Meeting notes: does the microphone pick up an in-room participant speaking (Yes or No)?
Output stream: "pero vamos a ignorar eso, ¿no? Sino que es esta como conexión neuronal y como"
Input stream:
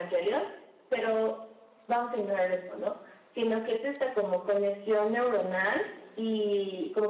No